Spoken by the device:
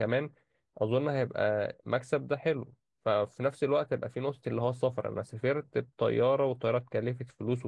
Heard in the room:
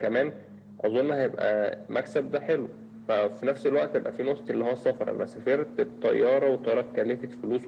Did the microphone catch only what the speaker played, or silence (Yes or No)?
Yes